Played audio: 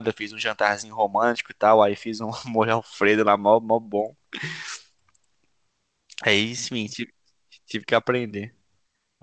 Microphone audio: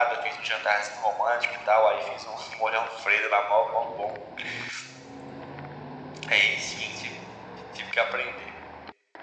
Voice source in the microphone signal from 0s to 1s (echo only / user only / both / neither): echo only